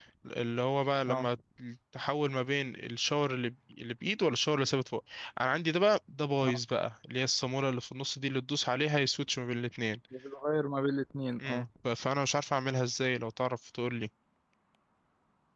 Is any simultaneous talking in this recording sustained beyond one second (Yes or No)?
No